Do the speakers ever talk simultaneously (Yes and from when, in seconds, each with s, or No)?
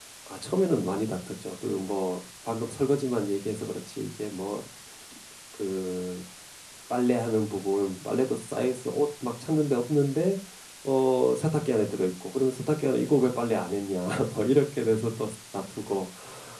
No